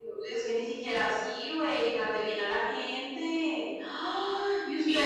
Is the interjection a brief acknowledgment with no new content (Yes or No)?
Yes